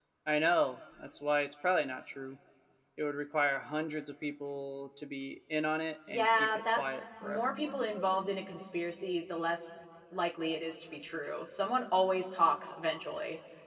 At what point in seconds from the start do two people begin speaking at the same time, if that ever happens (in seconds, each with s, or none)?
6.1 s